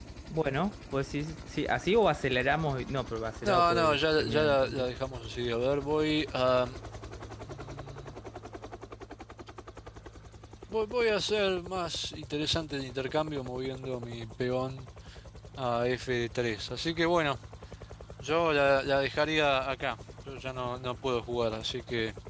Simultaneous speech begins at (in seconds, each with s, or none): 3.4 s